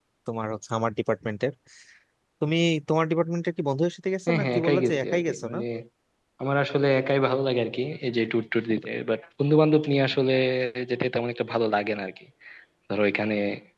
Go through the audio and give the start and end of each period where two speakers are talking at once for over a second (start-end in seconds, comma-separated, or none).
4.3-5.6